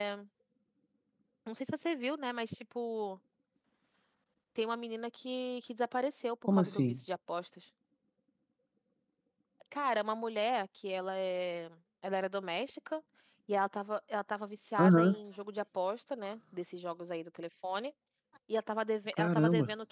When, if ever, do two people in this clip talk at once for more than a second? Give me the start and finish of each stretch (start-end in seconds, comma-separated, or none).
none